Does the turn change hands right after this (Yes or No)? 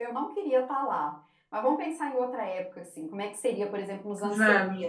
No